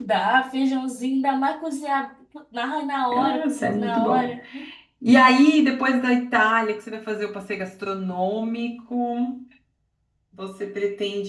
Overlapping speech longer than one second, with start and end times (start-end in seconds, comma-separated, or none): 3.1-4.3